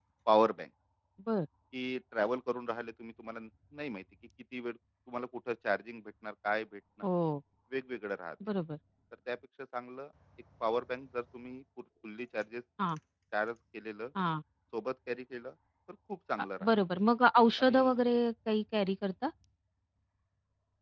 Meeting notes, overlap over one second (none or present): none